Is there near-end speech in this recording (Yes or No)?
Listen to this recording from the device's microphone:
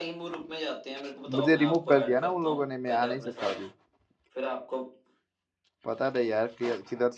Yes